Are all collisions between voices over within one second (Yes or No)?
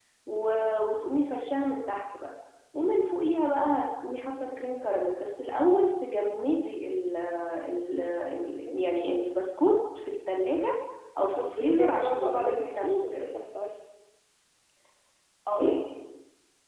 No